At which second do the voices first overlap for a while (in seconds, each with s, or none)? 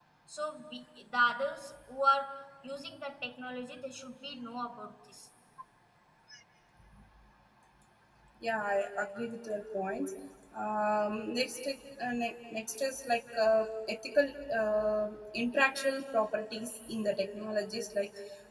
none